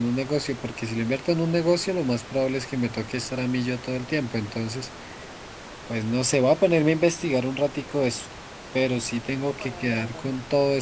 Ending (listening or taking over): listening